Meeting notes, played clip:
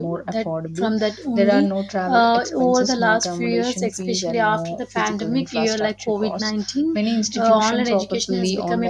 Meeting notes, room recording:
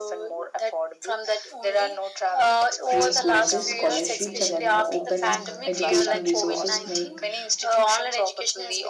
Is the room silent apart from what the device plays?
No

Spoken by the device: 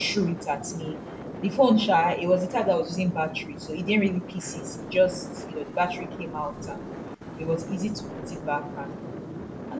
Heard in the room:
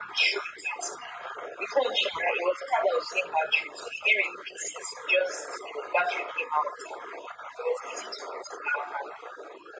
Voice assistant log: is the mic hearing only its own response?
Yes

